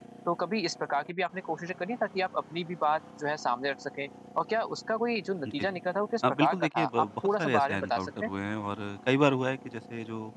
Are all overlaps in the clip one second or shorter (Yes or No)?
No